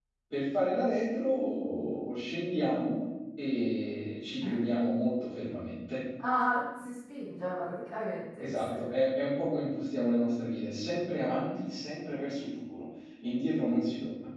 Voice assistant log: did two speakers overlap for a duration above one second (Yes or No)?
No